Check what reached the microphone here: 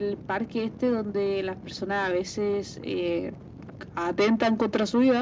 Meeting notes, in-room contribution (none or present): none